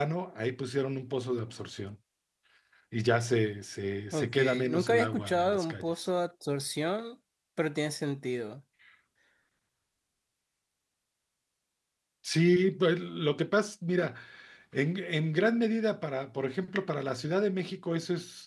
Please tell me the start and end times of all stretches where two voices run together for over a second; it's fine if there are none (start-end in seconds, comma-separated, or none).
4.1-5.9